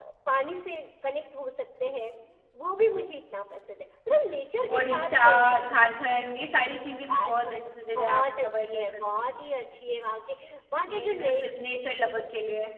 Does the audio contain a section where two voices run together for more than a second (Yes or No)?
Yes